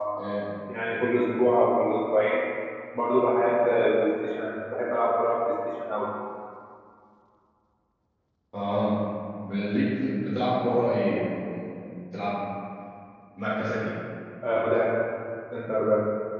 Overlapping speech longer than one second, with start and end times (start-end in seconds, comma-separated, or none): none